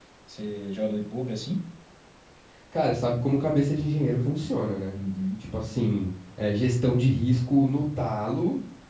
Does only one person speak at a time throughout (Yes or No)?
Yes